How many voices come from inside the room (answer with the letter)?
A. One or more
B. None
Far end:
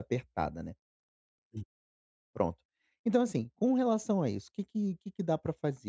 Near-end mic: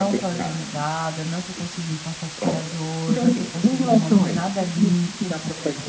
A